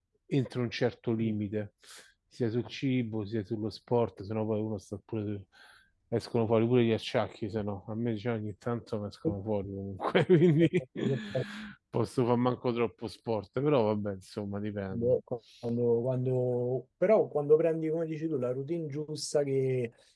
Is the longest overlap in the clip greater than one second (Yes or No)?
No